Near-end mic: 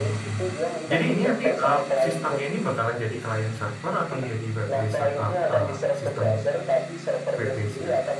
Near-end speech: present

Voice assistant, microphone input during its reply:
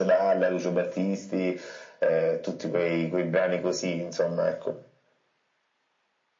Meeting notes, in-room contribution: none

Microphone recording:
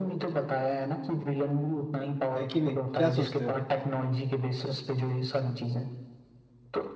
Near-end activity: present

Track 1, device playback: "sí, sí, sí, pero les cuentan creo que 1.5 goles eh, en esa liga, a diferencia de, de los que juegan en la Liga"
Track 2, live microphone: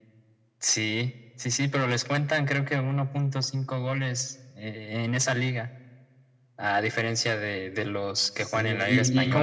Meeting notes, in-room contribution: present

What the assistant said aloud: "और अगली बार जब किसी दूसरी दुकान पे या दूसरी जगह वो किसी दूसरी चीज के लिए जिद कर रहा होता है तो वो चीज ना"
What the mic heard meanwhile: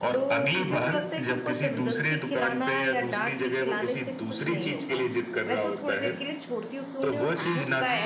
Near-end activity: present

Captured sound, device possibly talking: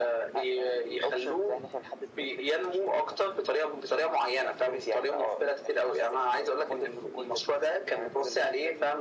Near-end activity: none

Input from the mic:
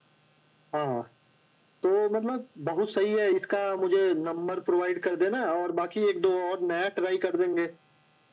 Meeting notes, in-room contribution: none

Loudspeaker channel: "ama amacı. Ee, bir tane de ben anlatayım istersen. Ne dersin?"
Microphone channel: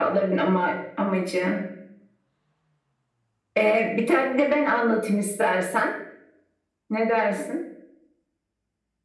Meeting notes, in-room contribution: none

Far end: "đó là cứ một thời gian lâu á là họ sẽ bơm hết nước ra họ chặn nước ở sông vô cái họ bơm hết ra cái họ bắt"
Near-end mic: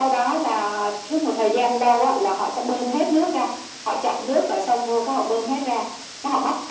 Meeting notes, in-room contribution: none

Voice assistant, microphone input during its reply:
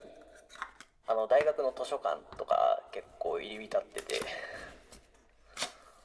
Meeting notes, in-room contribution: none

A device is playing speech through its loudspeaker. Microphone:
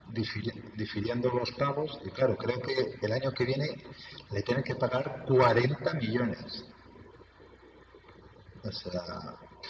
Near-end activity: none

